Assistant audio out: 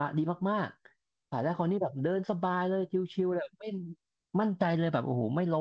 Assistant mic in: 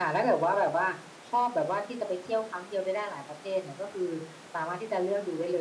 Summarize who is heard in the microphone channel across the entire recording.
user only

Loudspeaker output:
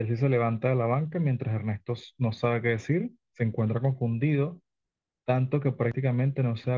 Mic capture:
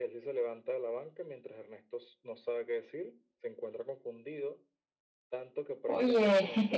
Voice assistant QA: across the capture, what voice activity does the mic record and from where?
both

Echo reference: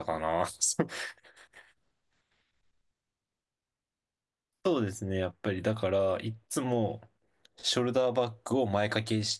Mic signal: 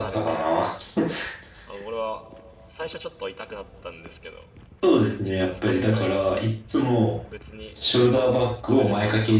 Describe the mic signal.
both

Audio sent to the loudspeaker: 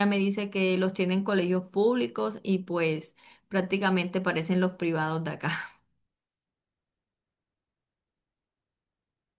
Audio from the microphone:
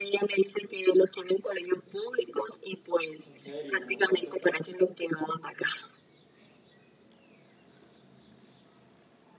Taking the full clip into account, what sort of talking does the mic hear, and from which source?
both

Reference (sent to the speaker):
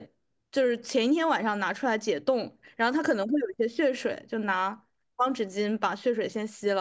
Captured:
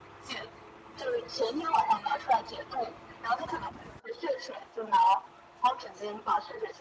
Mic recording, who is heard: echo only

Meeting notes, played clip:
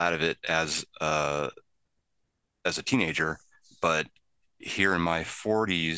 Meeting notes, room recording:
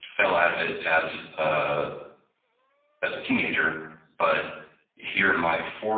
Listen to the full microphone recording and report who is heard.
echo only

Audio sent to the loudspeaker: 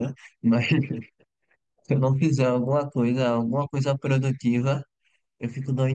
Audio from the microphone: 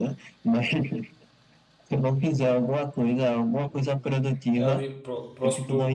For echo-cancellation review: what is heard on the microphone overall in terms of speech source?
both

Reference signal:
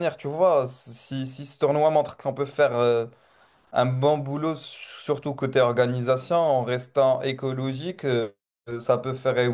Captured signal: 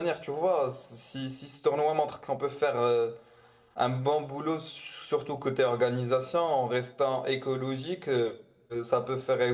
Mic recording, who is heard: echo only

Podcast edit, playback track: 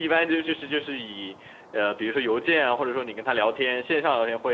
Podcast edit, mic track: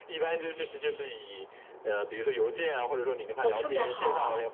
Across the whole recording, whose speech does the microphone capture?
both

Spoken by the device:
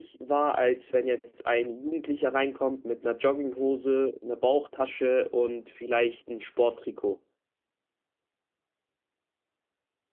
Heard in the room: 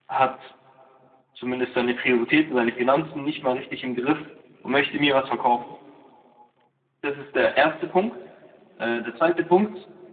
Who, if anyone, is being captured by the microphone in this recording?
user only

